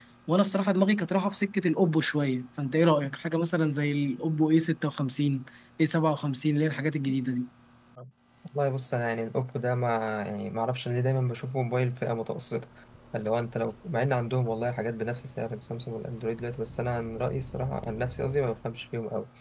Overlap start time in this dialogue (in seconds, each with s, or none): none